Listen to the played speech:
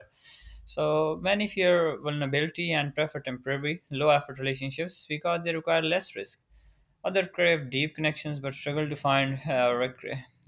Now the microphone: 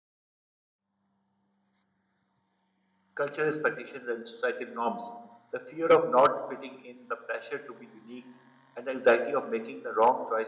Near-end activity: present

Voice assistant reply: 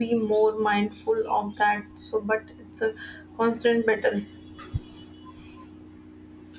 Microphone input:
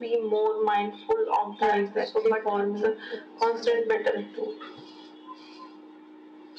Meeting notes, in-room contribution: present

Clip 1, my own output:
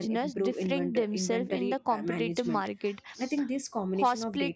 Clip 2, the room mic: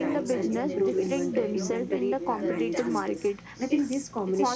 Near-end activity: present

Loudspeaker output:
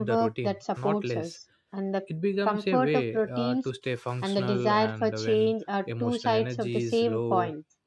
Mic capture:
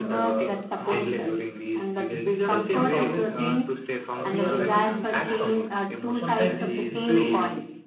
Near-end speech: present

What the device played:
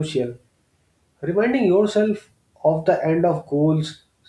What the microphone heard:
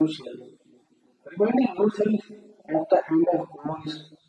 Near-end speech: none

